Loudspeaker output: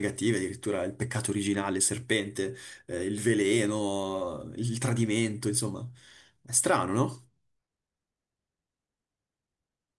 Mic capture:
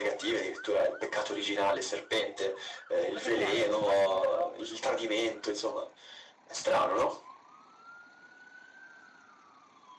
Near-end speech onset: 3 s

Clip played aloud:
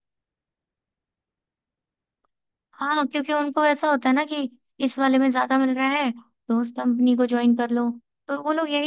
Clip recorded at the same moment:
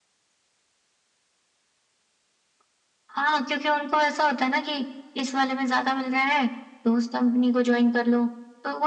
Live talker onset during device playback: none

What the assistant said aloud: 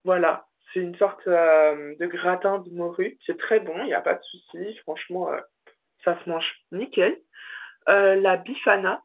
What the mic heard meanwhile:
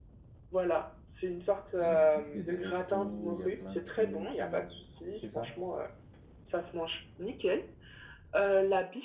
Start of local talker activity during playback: 2 s

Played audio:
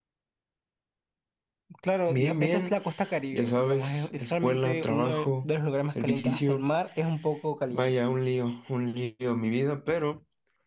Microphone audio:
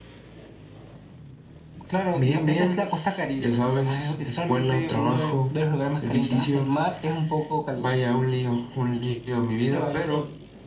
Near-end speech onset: 10 s

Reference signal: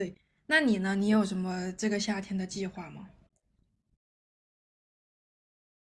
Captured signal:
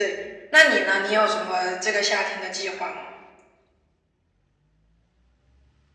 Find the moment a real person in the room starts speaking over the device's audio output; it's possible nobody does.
none

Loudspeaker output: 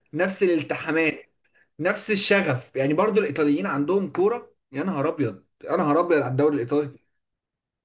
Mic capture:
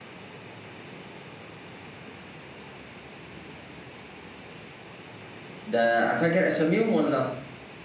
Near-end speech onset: 6 s

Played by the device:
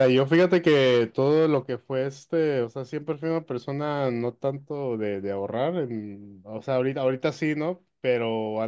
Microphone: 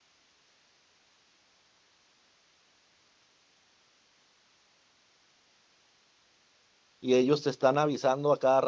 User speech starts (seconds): 7 s

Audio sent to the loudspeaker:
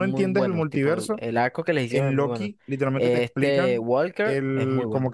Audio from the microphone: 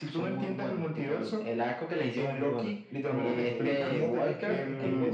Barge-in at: 3 s

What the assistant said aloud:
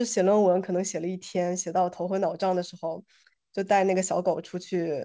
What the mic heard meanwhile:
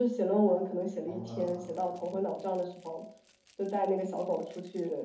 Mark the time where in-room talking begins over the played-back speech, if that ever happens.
1 s

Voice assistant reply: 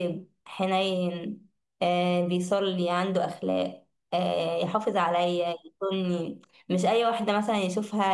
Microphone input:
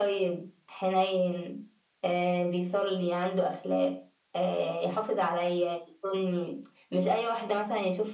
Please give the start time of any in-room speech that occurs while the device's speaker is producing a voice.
none

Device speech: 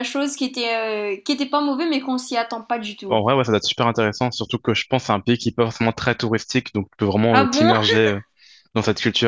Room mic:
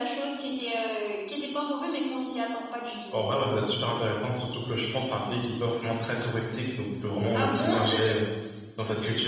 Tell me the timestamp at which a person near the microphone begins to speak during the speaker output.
none

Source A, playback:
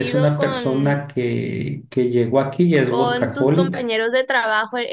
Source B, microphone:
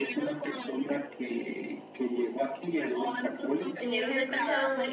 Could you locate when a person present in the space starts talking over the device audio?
4 s

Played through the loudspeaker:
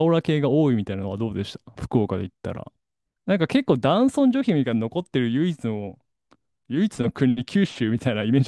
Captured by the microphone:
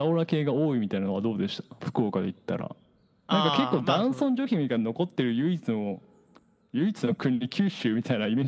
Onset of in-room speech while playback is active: 3 s

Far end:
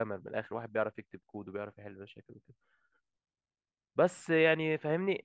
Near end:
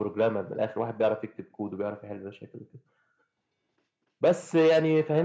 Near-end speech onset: none

